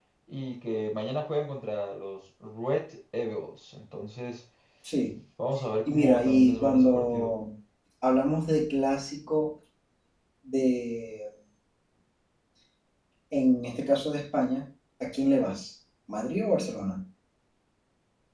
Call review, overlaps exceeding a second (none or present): present